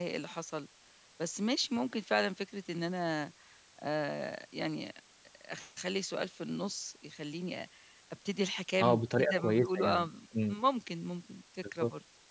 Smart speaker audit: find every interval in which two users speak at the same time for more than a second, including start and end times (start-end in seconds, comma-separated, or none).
8.8-10.1